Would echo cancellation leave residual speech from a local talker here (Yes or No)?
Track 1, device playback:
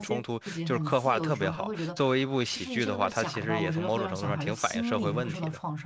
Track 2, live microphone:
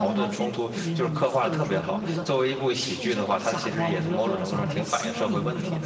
No